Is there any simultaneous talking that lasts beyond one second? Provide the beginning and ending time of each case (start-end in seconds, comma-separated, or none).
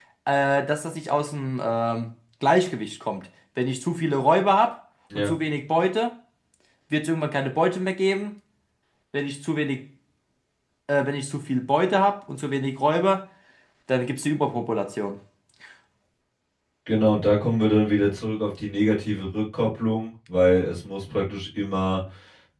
none